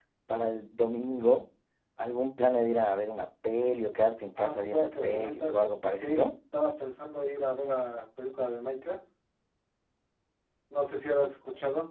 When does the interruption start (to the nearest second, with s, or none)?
4 s